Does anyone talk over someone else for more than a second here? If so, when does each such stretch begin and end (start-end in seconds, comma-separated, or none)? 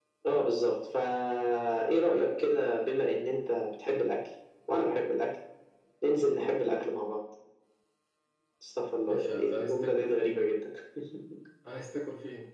9.1-10.4